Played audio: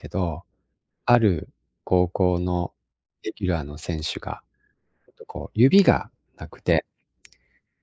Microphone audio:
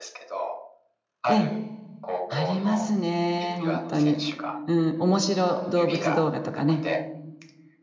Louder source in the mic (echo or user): user